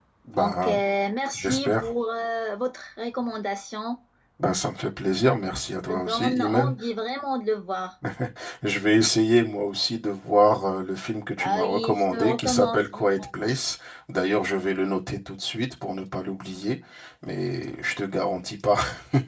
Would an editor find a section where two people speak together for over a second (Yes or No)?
Yes